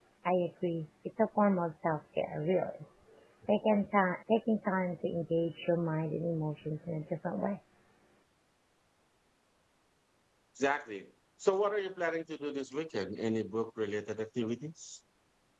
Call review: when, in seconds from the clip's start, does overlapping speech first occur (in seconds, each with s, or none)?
none